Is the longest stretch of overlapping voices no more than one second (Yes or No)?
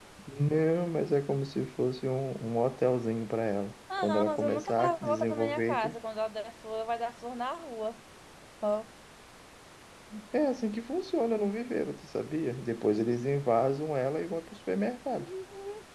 No